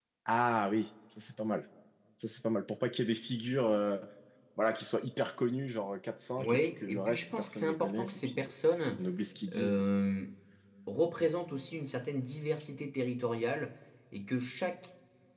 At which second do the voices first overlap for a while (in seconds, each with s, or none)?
6.4 s